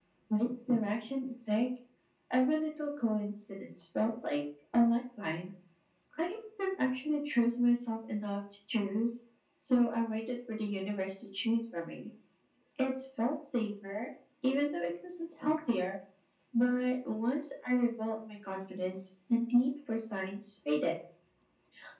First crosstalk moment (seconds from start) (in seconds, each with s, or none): none